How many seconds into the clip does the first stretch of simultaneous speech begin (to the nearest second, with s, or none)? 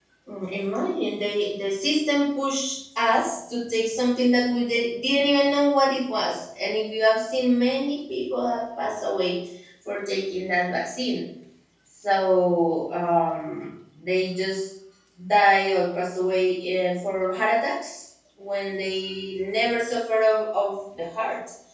none